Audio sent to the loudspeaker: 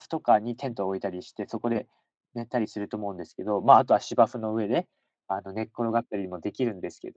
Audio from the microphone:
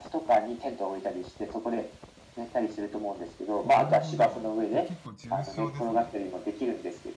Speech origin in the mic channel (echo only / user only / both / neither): both